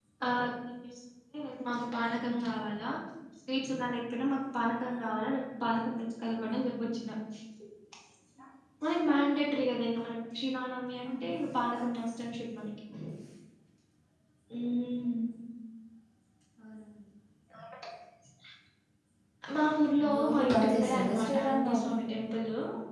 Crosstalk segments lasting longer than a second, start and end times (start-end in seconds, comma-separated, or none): 20.1-22.0